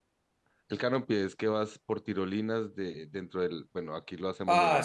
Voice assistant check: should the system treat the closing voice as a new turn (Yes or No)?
Yes